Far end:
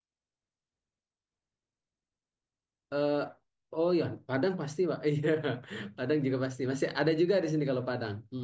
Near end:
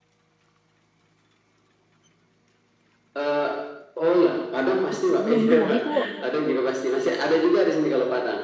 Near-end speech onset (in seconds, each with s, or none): 4.9 s